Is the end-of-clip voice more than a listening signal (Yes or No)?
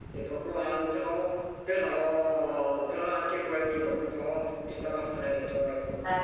Yes